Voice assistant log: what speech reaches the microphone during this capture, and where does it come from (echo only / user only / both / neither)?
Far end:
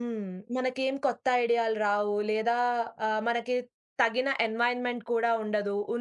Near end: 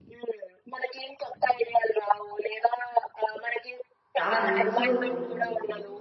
both